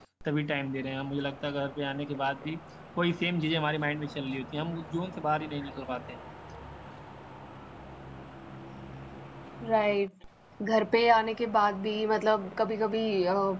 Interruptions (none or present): none